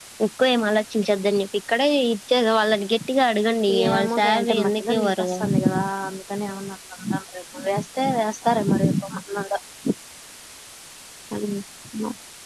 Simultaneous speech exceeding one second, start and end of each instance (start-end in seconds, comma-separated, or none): 3.9-5.3